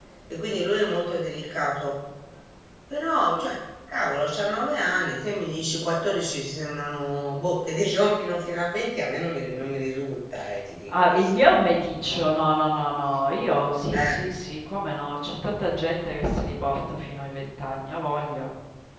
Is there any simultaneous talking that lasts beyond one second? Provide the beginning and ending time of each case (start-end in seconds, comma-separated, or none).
none